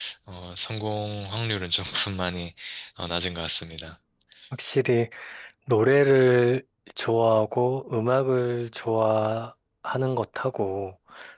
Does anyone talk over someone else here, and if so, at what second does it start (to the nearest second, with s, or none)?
none